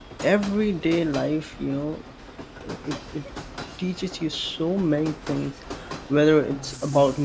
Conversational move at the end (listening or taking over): listening